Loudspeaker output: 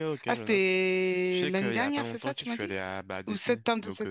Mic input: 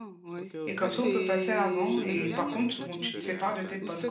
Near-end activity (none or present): present